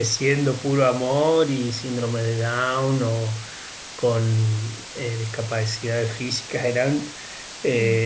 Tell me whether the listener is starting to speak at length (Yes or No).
No